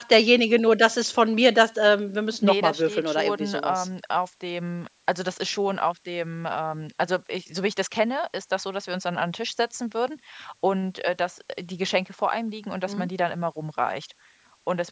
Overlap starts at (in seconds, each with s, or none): 2.4 s